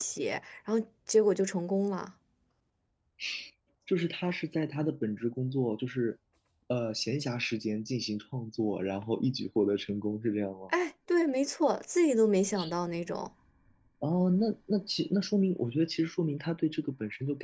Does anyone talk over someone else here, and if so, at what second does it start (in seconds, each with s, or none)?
none